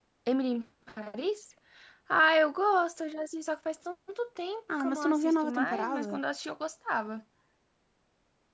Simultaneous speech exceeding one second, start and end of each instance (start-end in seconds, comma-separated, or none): 4.8-6.2